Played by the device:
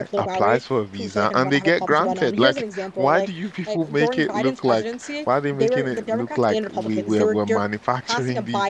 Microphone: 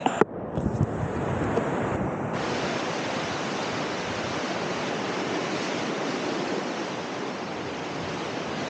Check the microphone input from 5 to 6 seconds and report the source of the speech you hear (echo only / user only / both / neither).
neither